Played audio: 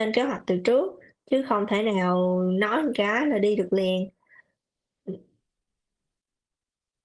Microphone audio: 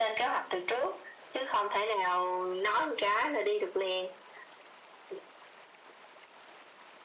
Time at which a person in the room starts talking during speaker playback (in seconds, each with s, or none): none